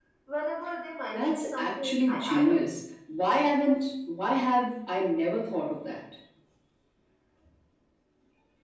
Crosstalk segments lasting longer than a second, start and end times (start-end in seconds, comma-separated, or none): 1.1-2.6